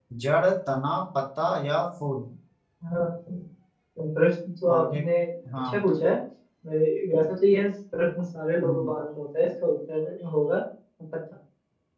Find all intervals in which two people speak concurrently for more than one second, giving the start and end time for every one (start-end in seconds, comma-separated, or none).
none